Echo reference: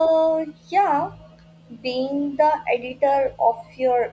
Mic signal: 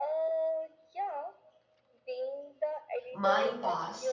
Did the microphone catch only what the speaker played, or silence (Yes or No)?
No